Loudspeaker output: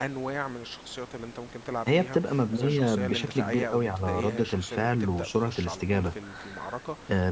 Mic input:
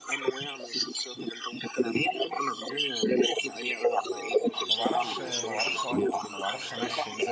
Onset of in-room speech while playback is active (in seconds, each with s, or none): 4.7 s